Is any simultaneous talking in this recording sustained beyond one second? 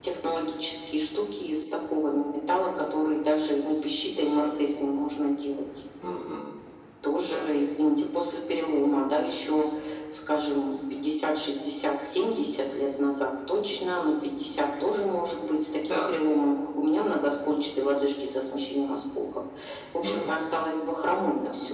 No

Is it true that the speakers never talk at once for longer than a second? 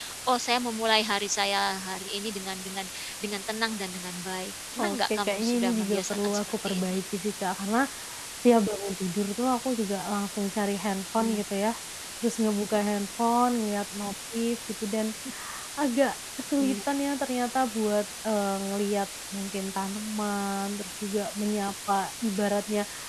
No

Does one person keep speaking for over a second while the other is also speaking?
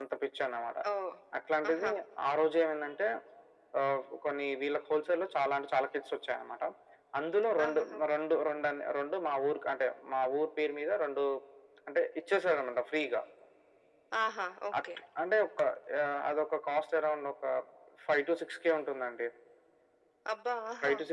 No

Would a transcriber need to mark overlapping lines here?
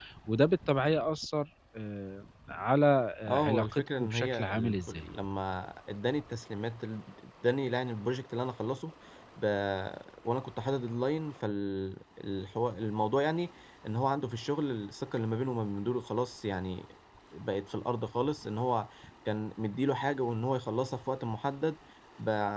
Yes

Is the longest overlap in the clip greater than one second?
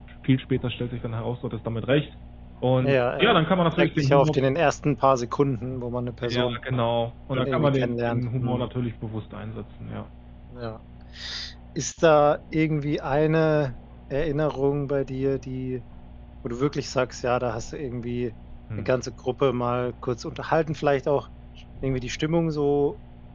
Yes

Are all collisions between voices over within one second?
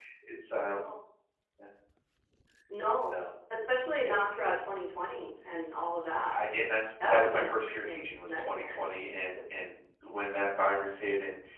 No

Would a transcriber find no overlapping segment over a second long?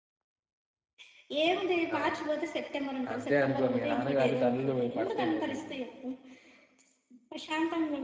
No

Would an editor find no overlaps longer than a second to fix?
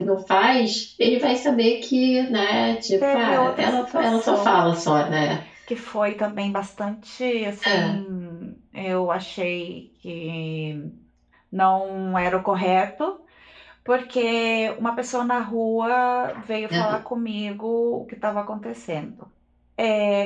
No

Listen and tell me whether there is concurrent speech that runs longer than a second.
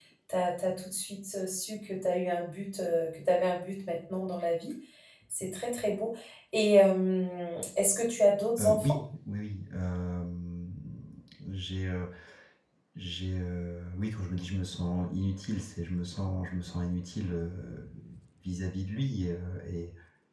No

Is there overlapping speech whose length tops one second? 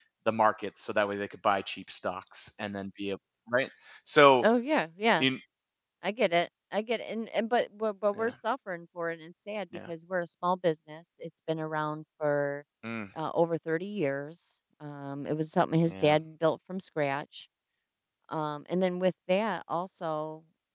No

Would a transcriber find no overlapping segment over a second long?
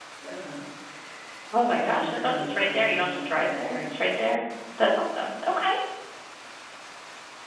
No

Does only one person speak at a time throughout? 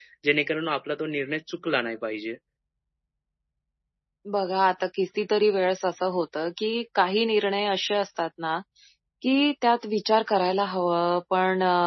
Yes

